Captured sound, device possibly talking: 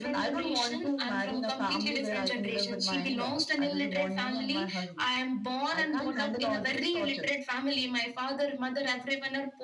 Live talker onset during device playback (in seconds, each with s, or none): none